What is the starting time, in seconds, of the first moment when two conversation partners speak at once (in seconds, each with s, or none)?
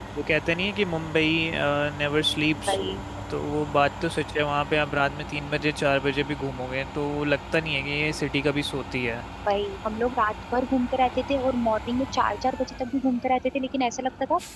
none